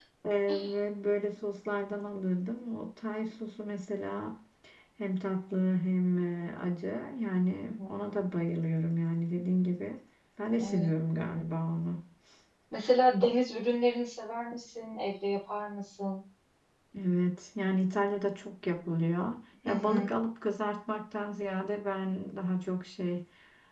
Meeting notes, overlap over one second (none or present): none